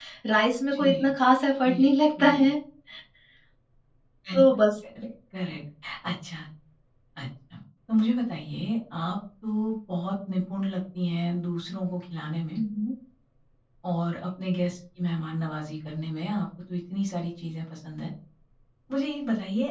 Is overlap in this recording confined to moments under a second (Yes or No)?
Yes